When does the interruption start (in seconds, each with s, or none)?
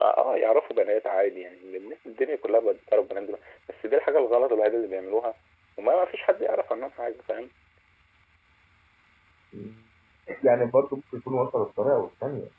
none